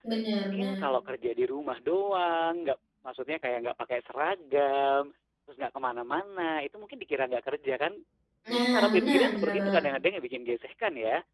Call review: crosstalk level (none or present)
present